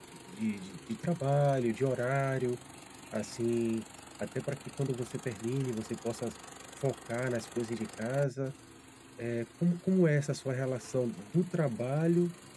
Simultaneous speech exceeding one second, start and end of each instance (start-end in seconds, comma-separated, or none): none